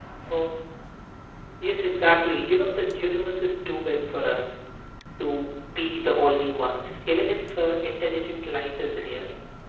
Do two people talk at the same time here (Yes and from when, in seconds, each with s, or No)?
No